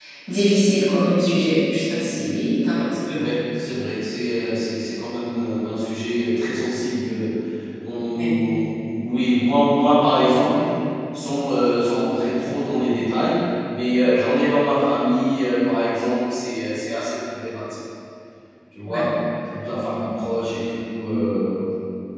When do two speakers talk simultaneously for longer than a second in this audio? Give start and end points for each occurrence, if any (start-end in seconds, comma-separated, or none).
none